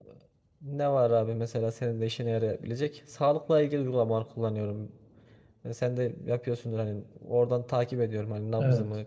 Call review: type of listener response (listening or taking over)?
listening